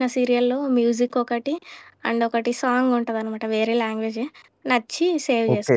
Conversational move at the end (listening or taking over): taking over